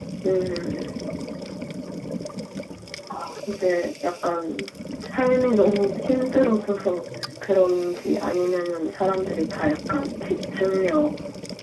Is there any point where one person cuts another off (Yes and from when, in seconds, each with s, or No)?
No